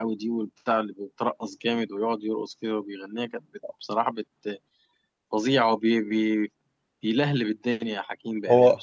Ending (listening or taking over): taking over